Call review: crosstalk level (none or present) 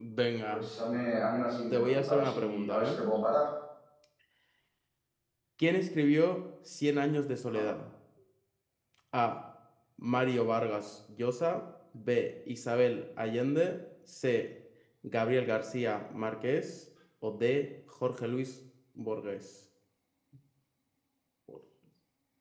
present